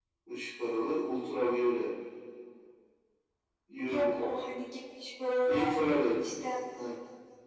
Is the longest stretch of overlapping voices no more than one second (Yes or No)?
Yes